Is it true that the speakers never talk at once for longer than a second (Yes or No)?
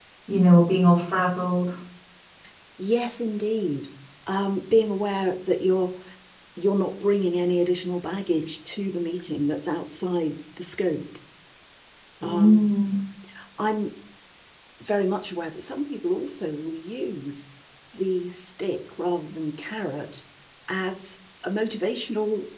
Yes